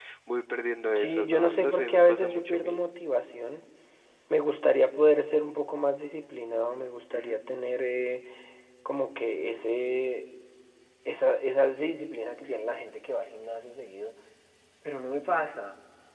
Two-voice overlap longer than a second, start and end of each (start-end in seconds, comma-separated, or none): 1.0-2.8